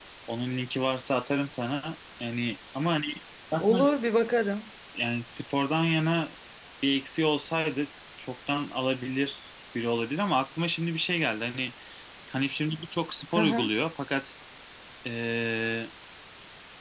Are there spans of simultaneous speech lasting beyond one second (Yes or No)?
No